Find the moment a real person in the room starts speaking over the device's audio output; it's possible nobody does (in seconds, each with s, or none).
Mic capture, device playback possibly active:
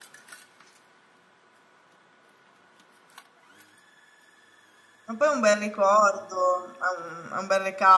5.1 s